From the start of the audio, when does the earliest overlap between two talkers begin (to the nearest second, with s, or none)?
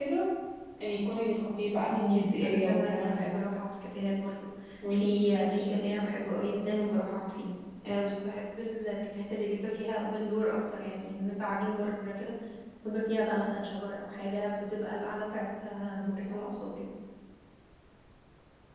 2 s